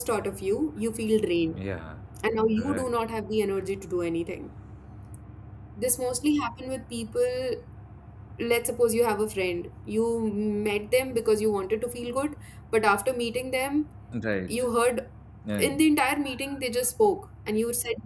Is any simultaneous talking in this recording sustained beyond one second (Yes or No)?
No